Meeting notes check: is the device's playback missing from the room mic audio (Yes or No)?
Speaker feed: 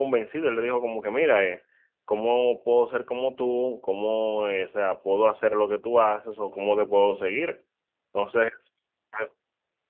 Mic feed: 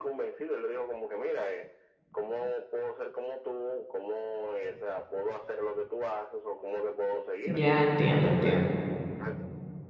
No